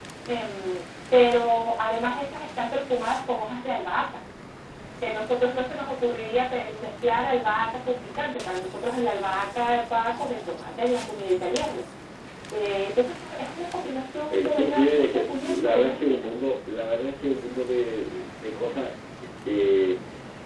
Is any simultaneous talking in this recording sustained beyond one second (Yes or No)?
Yes